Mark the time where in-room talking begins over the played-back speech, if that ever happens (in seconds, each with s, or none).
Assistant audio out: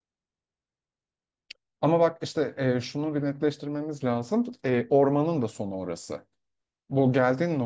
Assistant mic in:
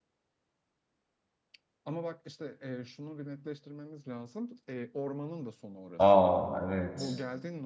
6.0 s